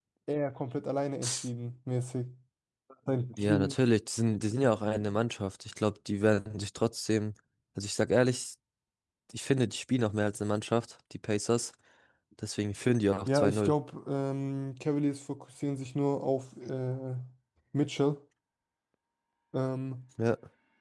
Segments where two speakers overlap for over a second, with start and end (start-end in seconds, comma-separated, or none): none